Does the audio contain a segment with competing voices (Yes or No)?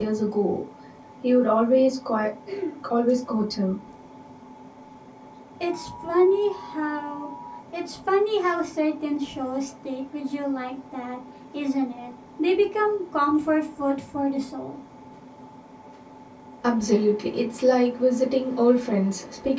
No